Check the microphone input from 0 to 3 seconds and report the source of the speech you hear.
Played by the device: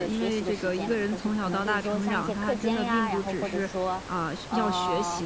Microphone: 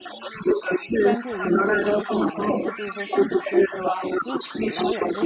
both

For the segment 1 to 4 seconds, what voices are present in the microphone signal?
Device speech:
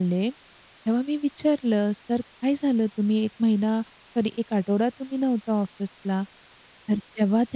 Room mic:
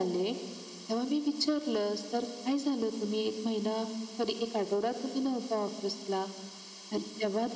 echo only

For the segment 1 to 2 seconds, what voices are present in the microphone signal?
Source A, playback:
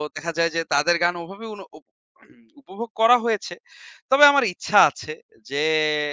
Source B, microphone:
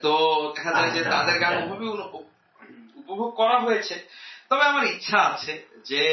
both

